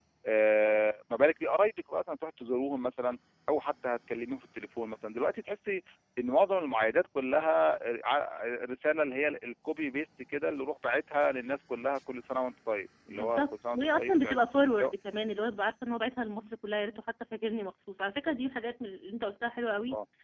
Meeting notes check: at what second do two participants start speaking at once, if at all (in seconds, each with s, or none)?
13.1 s